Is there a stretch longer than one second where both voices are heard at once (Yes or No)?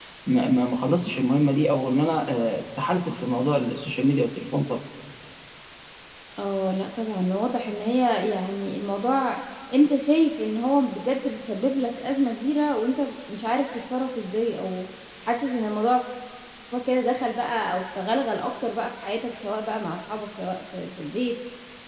No